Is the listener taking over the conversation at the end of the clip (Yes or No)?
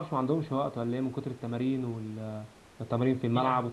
Yes